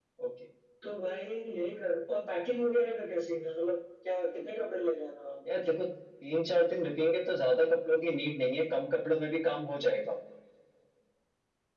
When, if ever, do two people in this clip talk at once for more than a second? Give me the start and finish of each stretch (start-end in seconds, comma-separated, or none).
none